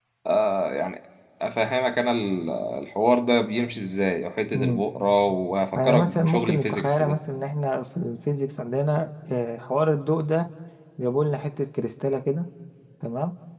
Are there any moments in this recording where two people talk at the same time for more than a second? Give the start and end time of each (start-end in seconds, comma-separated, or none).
5.8-7.2